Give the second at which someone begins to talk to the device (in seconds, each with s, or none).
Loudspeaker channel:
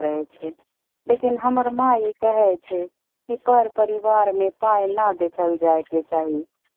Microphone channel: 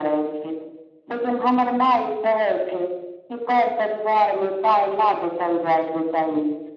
none